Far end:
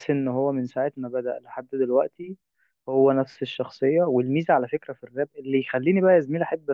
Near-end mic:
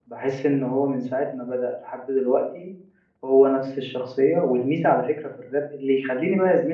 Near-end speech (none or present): none